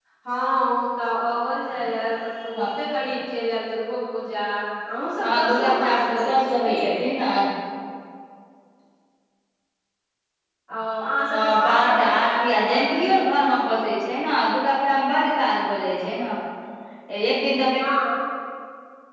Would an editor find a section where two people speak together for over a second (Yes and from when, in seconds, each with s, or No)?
Yes, from 5.2 s